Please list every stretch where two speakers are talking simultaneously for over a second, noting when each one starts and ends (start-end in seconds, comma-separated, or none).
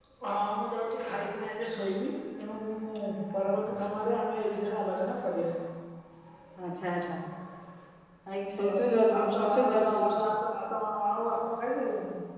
8.7-10.2